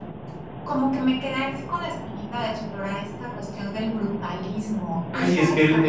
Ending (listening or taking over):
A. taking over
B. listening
A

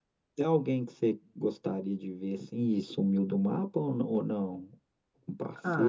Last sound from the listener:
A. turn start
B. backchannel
A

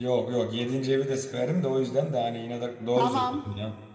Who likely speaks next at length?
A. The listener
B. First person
A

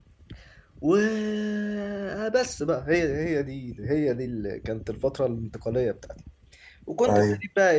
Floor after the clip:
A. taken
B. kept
B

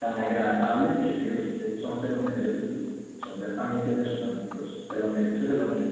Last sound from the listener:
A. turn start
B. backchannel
A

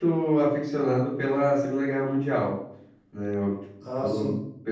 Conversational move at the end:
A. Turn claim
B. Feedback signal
B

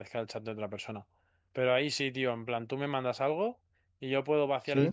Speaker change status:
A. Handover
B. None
B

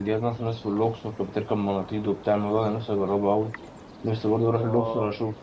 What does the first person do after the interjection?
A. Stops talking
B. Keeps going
B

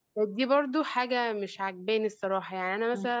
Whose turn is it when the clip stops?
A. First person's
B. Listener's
B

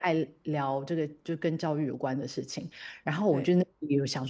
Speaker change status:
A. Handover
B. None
B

